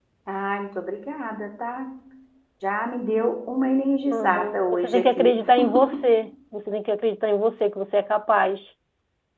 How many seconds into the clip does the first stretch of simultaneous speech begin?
4.1 s

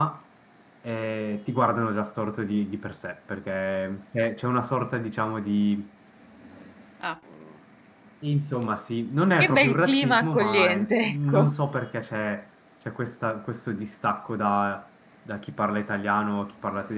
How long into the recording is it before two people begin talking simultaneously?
9.4 s

